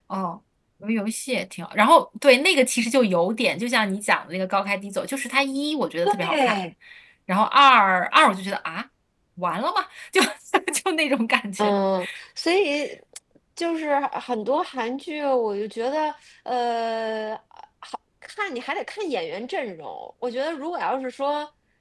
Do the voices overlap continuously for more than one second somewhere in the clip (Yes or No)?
No